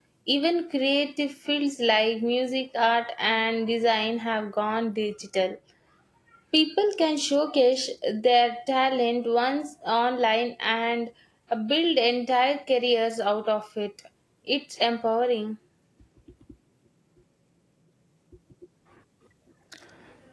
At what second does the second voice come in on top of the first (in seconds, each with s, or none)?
none